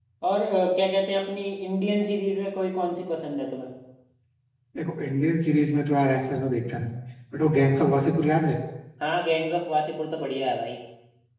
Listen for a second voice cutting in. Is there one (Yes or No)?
No